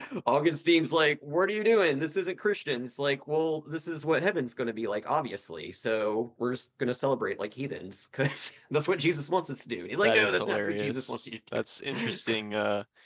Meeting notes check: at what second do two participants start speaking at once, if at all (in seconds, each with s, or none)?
10.0 s